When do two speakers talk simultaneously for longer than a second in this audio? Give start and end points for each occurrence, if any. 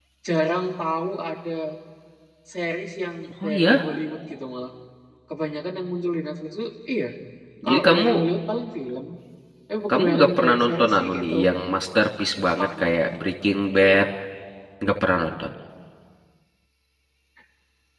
9.9-11.3

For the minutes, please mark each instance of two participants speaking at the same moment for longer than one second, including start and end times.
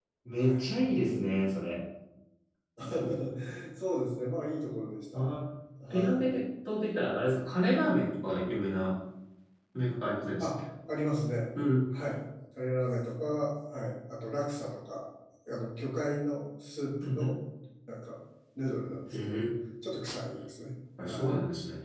none

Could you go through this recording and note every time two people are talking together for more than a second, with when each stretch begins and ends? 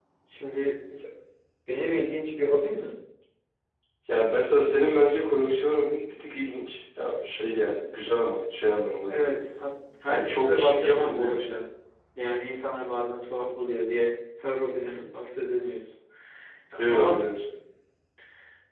10.1-11.6

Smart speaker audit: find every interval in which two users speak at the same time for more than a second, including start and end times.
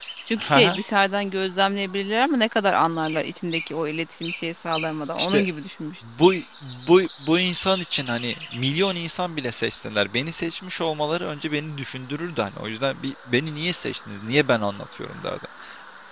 none

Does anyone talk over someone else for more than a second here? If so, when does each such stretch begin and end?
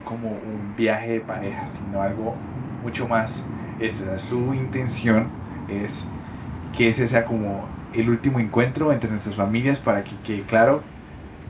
none

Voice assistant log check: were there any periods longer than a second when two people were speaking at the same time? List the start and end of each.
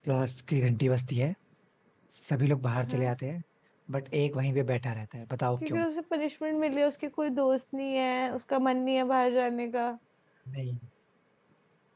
none

